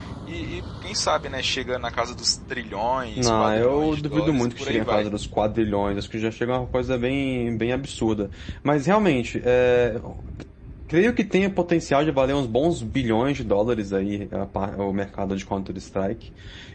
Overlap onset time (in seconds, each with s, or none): 3.2 s